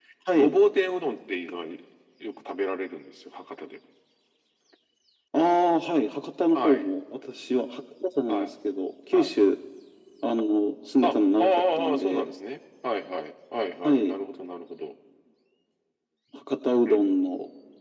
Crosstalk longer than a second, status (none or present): present